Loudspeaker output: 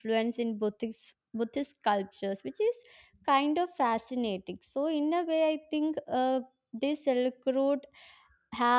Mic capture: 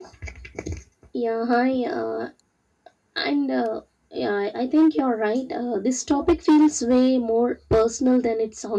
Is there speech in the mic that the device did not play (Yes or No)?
Yes